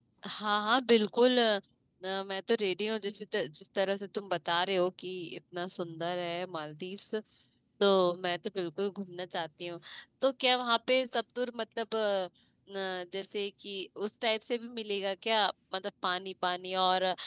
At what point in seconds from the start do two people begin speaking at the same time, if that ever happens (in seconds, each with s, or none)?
none